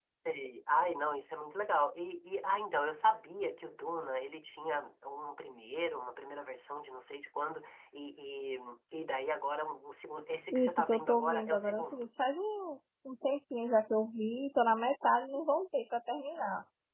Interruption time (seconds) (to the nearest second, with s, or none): 11 s